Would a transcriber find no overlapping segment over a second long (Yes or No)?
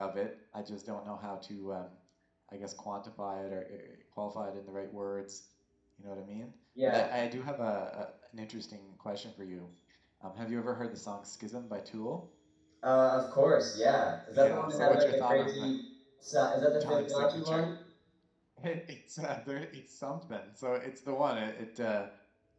No